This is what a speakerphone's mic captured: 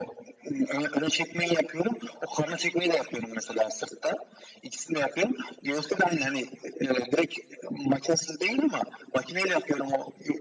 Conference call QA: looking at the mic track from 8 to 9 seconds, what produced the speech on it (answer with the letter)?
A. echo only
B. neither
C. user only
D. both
A